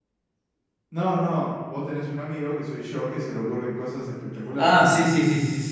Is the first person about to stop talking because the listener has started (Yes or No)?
Yes